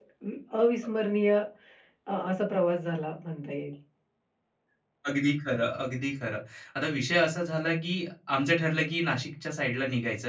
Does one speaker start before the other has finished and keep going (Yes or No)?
No